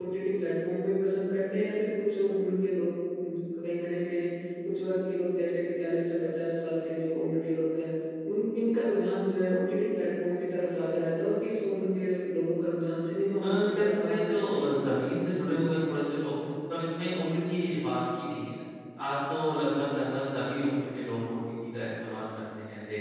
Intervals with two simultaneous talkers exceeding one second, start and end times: 13.4-14.8

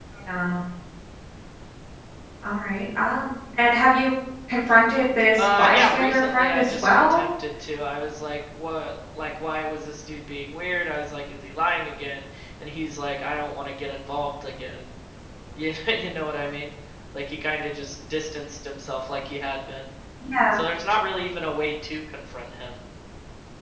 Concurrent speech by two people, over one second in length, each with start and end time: 5.4-7.3

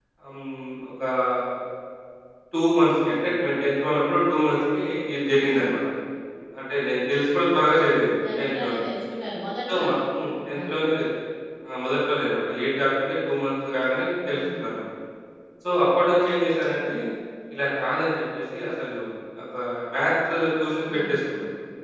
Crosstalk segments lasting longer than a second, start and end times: none

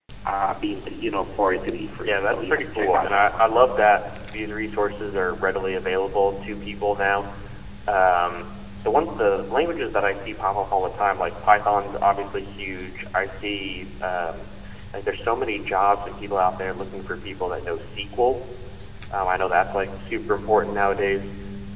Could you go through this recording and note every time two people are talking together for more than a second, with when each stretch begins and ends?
2.0-3.5

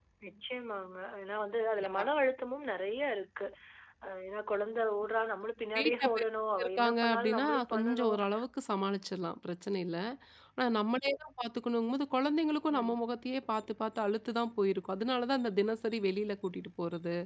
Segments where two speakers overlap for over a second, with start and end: 6.6-8.2

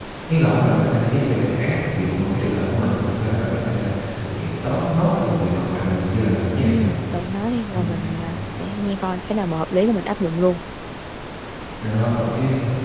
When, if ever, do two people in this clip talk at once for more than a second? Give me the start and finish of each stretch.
none

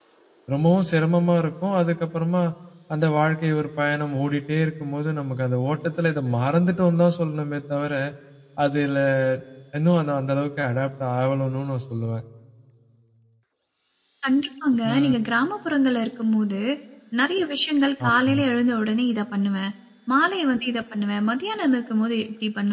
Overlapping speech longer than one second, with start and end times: none

